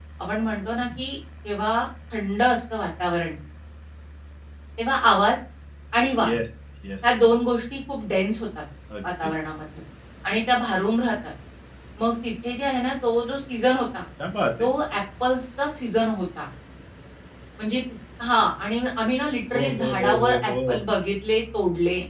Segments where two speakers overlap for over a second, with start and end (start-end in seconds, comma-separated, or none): 19.5-20.8